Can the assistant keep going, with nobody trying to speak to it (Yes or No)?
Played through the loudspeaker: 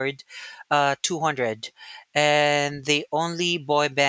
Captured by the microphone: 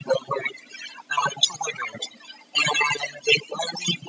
Yes